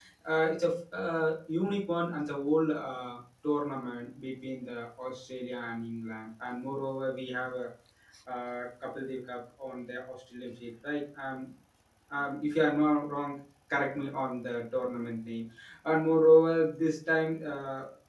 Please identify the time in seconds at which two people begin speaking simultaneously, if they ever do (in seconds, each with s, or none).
none